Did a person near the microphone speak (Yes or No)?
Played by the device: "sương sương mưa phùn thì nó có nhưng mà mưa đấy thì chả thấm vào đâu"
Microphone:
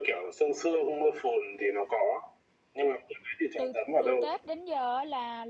Yes